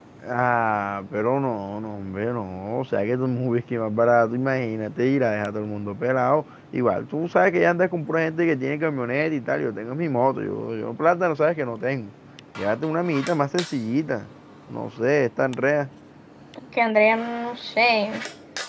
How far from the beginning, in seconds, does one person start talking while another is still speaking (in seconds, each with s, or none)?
none